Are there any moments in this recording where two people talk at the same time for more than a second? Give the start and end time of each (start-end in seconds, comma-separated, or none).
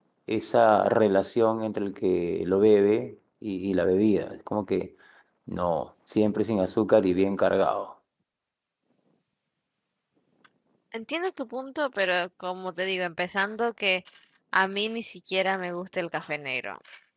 none